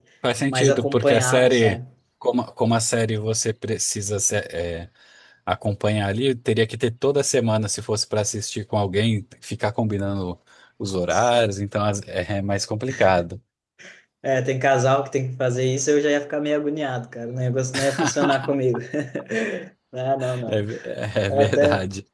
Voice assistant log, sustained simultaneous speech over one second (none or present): present